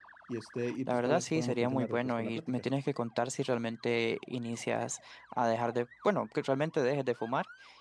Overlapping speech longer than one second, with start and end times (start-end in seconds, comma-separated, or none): 0.9-2.6